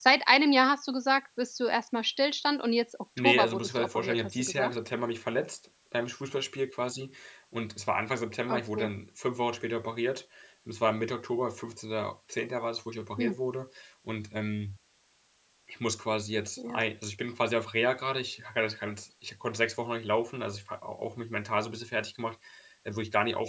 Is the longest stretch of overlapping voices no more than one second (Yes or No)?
No